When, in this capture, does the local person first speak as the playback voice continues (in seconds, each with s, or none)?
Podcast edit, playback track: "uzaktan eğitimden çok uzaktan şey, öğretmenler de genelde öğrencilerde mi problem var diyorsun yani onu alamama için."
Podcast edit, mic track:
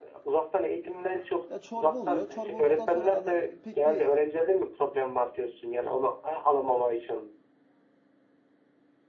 1.5 s